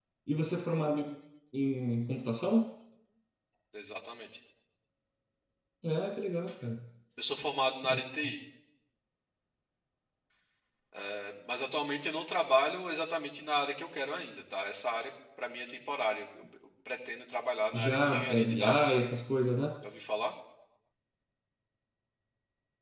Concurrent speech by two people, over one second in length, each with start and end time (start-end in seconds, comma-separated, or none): 17.7-19.0